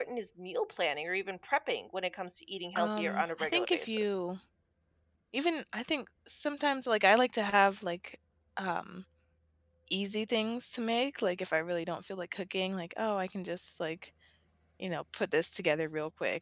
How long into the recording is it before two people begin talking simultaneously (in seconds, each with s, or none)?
2.8 s